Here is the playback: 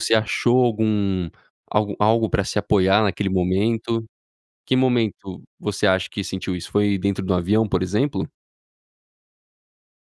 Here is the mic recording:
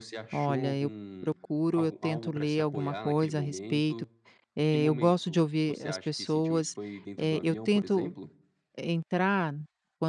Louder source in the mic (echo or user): user